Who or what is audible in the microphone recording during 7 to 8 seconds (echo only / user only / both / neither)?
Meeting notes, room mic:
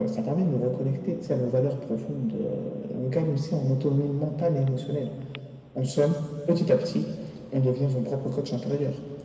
echo only